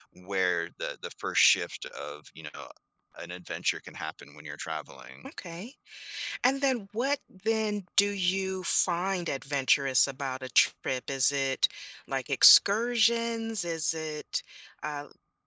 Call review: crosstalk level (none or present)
none